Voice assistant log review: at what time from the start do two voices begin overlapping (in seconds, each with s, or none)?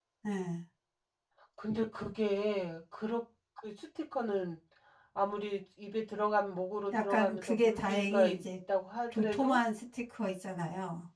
6.9 s